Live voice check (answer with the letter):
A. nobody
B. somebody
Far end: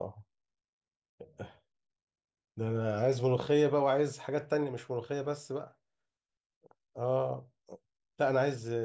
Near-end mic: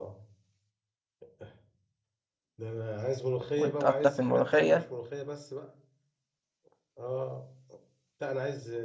B